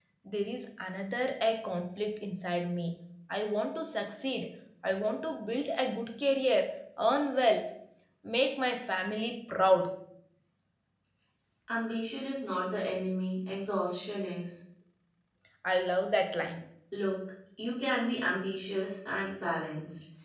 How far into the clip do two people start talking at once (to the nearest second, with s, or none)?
none